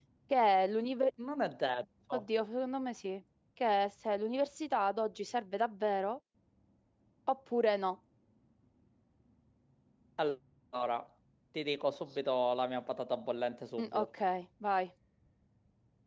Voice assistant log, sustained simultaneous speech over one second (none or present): none